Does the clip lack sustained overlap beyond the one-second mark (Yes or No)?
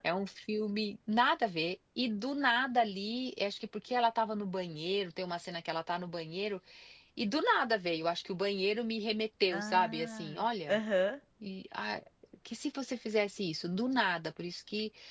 No